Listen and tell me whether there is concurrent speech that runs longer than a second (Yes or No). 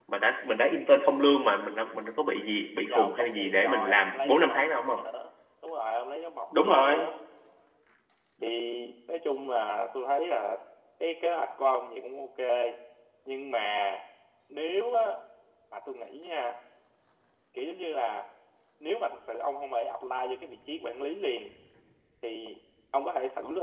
Yes